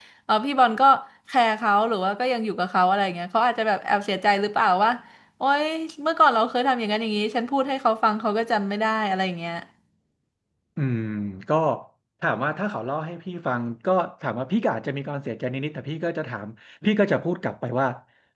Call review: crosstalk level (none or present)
none